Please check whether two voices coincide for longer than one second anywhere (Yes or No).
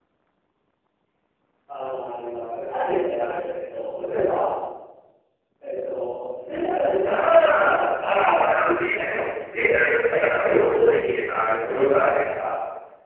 Yes